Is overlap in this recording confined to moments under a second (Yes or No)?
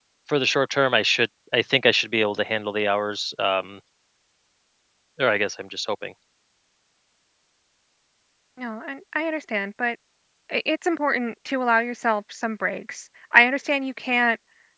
Yes